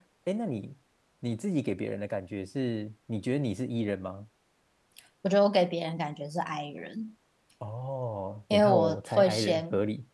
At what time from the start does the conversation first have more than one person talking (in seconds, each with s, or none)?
8.5 s